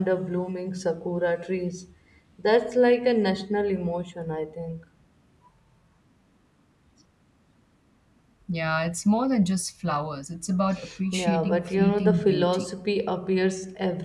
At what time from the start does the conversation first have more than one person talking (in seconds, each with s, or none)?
11.1 s